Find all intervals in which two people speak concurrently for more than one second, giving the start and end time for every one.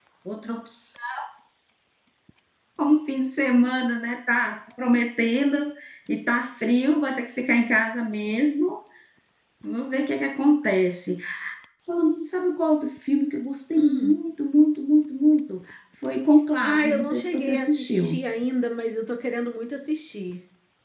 16.6-18.2

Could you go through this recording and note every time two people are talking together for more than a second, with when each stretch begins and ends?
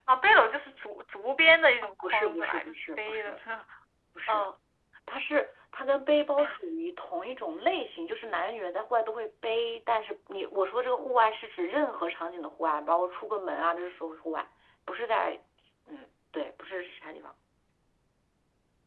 2.0-3.4

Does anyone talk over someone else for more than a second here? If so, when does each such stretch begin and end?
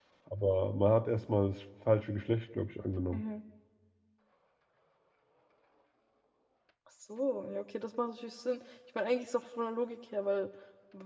none

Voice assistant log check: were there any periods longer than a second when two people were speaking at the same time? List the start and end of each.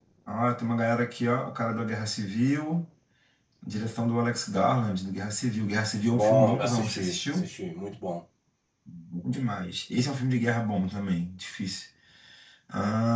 6.1-7.5

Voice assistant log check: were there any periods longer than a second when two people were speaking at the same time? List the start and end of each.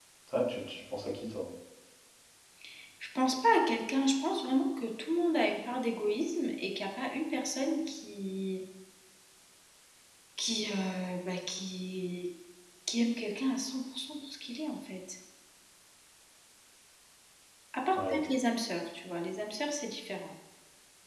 none

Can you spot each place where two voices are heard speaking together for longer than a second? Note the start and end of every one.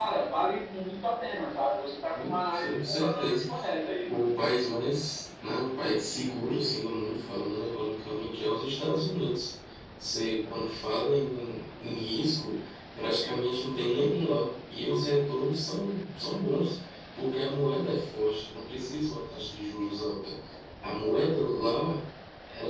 2.1-3.5

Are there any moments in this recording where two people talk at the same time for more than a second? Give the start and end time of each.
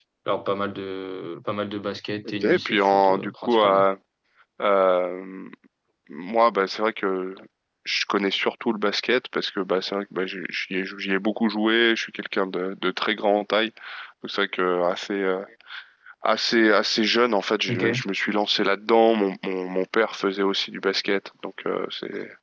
2.4-3.9

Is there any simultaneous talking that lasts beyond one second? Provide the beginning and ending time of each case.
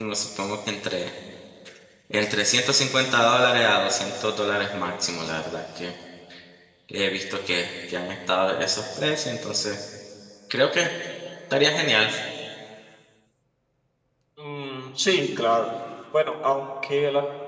none

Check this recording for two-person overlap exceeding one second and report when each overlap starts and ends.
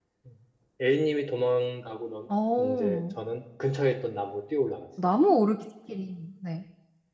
none

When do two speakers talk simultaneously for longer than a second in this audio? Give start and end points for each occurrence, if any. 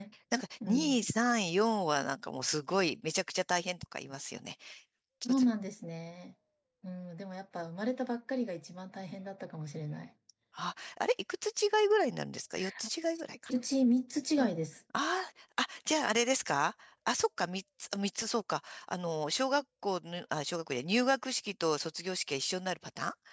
none

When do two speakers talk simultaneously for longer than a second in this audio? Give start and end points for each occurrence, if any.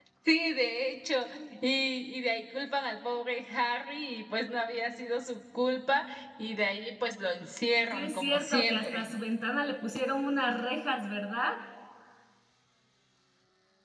7.9-9.1

